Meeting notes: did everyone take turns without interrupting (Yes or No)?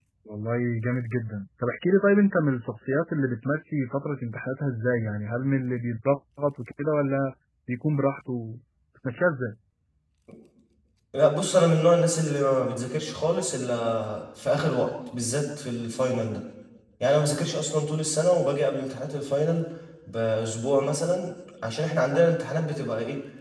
Yes